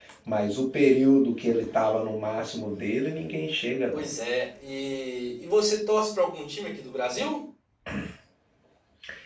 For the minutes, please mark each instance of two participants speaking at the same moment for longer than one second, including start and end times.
none

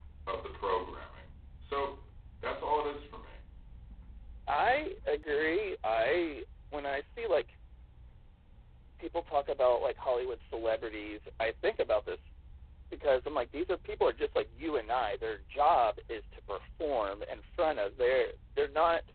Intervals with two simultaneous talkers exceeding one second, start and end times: none

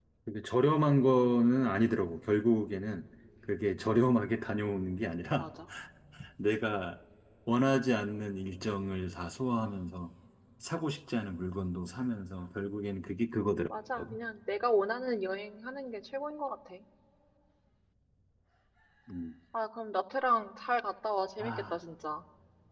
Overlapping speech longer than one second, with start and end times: none

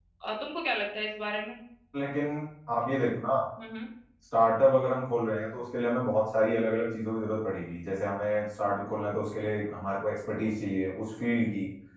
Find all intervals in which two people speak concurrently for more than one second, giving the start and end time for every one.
none

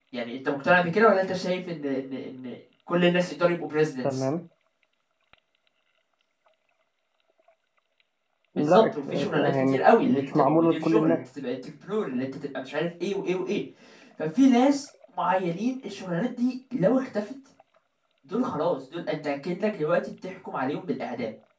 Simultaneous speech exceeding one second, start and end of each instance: 8.6-11.2

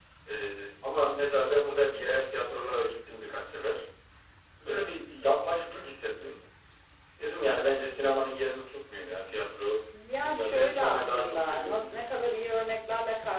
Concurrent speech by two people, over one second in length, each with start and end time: 10.2-12.0

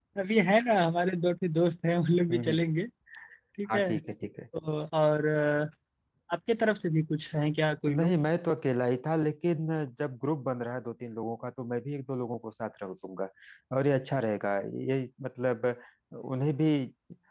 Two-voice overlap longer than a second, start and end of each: none

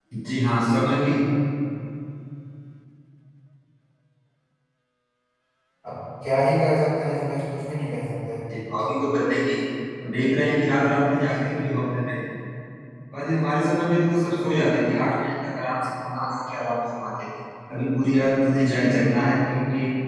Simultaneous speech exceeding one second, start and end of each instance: none

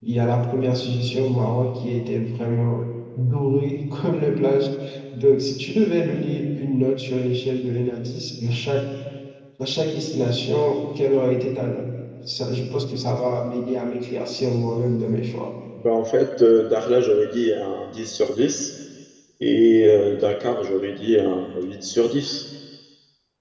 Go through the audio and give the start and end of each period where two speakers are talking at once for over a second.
none

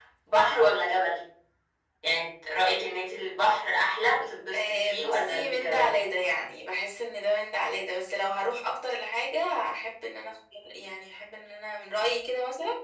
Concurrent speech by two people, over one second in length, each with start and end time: 4.5-5.9

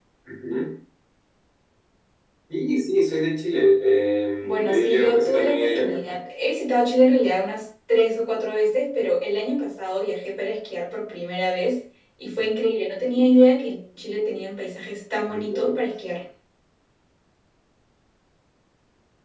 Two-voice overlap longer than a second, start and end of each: 4.4-6.2

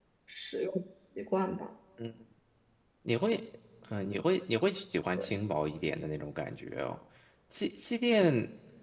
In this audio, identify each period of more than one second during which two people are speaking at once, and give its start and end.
none

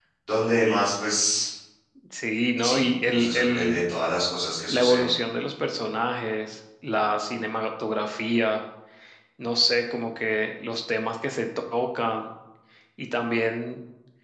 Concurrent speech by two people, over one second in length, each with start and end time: 2.6-3.8

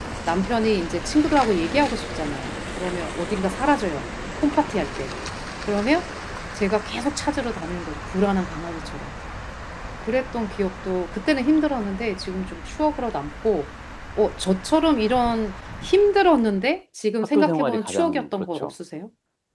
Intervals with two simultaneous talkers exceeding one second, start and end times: 17.3-18.7

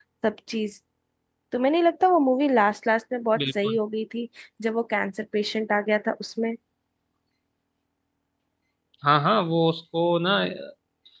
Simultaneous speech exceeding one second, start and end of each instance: none

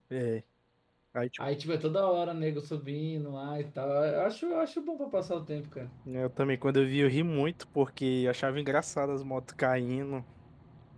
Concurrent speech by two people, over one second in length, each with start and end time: none

